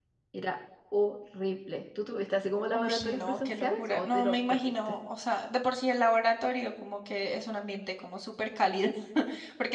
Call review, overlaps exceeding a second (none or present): present